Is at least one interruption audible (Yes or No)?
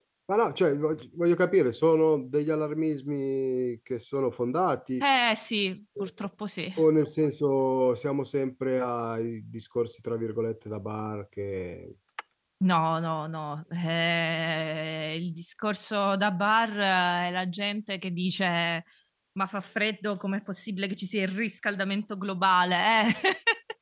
No